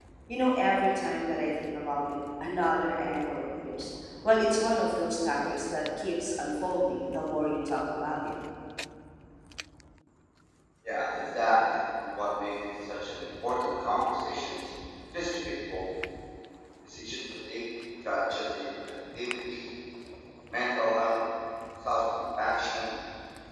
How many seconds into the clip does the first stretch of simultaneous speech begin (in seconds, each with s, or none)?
none